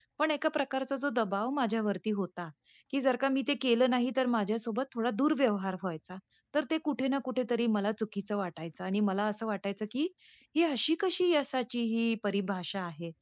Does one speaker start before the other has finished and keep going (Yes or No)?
No